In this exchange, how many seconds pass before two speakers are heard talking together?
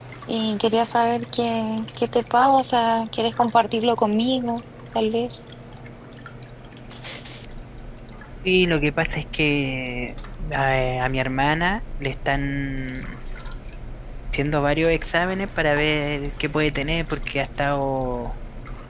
none

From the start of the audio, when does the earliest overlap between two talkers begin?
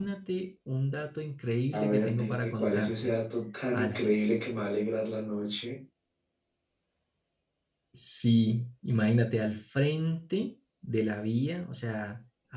1.7 s

